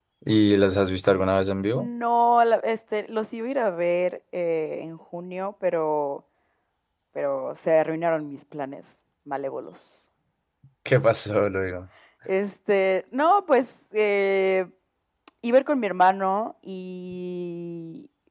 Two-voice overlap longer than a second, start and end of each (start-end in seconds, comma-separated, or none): none